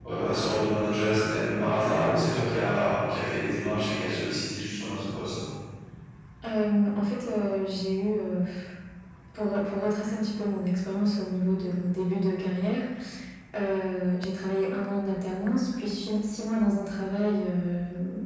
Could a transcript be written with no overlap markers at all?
Yes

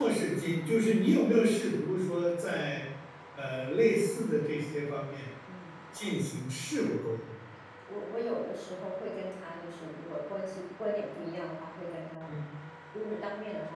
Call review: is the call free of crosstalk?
Yes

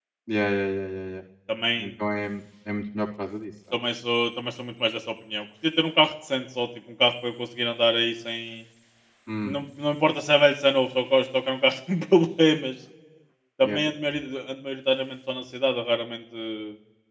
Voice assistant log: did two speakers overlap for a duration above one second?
No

